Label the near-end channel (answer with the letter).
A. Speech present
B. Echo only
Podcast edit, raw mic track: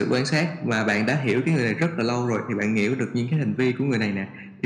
B